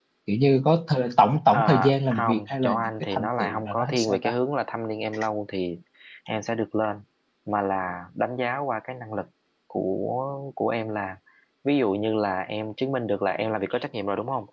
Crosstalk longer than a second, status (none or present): present